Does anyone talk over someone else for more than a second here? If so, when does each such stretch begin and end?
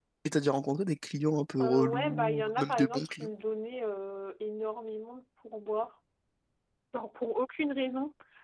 1.6-3.3

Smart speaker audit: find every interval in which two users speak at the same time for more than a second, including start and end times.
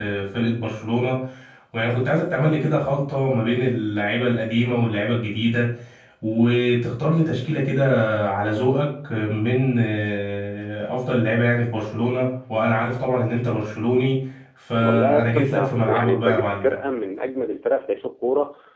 14.8-16.6

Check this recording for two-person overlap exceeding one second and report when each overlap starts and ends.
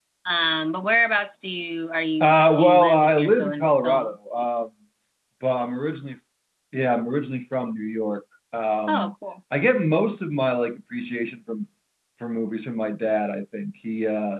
2.2-4.2

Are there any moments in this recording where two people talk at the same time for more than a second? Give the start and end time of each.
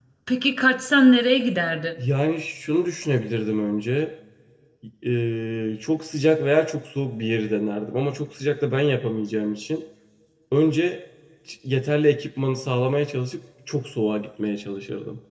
none

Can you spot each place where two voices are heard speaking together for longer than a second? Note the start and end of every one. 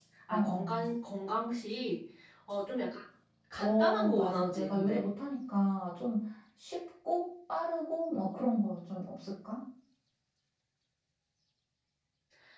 3.6-5.0

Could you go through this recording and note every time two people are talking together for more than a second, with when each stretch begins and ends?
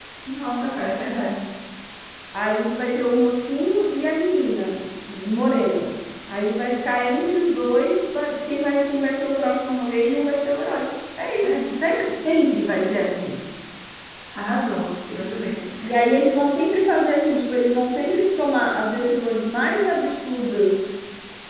none

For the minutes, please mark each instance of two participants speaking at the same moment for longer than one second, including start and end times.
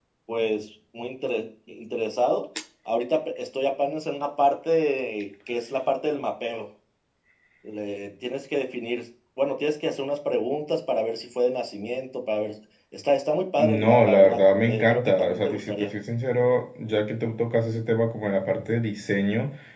13.6-15.9

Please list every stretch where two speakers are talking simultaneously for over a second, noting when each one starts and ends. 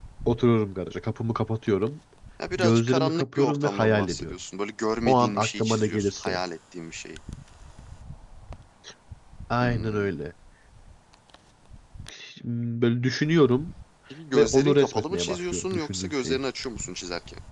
2.6-4.3, 5.1-6.4, 14.4-16.4

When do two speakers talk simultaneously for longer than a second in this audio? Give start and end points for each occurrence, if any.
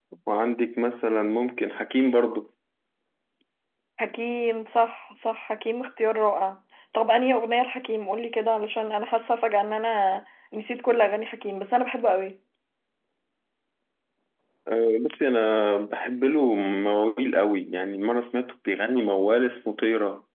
none

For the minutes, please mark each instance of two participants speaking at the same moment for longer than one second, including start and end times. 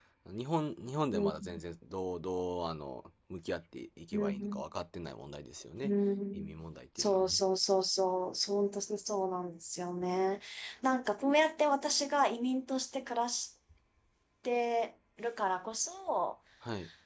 none

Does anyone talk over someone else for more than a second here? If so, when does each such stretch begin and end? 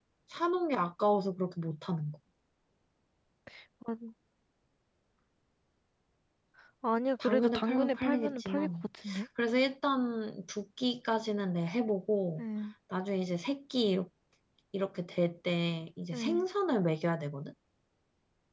7.2-8.7

